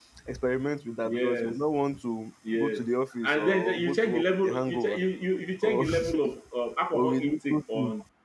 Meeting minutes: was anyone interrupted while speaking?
Yes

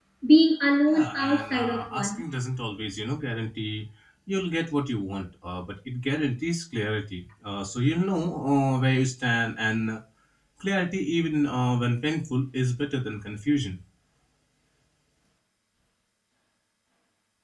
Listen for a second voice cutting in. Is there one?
Yes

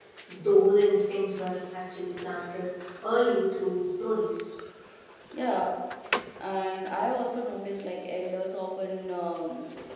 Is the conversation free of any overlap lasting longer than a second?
Yes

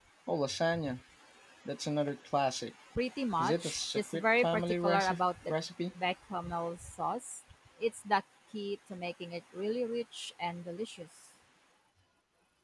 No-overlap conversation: No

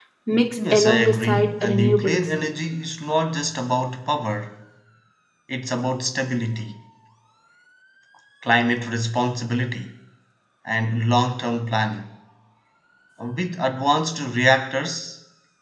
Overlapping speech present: Yes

